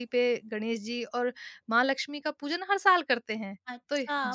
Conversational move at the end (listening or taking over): taking over